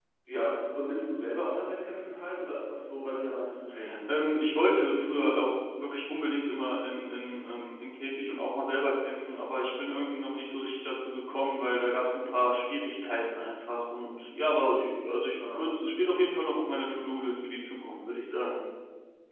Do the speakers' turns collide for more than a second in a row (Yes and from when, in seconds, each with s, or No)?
No